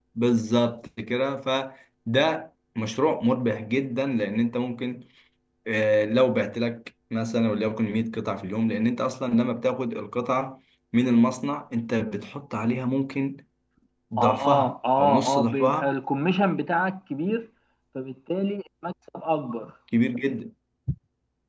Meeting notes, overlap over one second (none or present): present